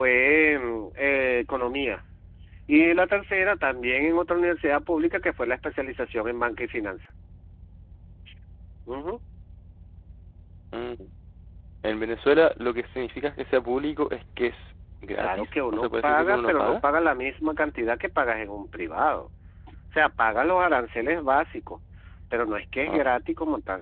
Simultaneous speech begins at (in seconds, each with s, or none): 15.2 s